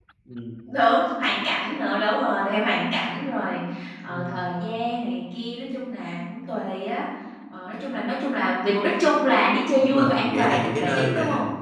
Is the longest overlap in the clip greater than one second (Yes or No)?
Yes